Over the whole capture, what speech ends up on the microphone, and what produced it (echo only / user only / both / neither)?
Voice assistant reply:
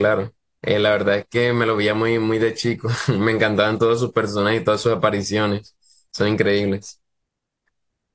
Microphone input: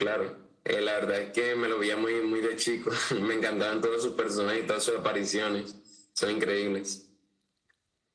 echo only